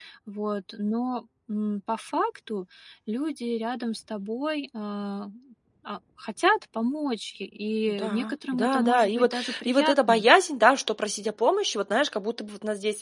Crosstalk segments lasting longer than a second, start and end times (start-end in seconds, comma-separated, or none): 7.9-10.3